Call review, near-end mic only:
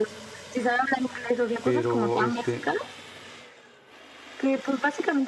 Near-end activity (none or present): present